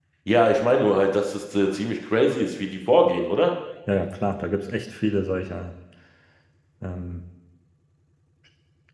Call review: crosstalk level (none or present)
none